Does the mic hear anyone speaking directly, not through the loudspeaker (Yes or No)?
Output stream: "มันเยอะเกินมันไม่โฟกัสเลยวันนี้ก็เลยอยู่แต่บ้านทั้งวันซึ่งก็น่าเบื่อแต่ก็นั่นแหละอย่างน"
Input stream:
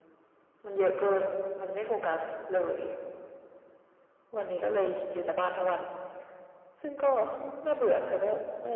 No